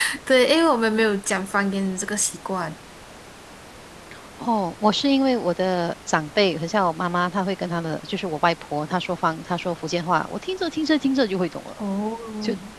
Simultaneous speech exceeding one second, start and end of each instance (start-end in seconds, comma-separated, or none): none